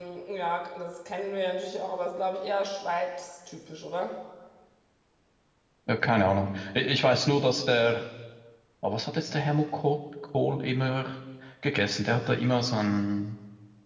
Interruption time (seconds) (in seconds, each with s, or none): none